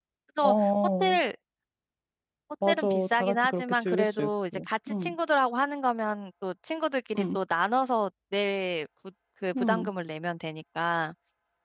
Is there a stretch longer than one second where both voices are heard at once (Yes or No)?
Yes